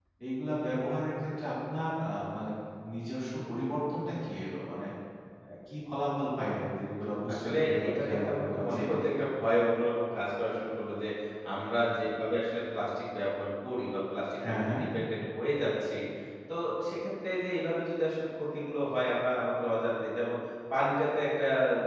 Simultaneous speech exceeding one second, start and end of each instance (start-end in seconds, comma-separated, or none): 7.3-9.0